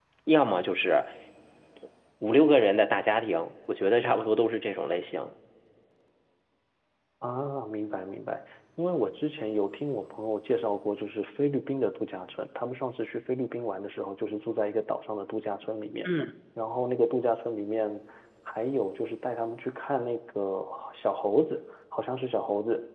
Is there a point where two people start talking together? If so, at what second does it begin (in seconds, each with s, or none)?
none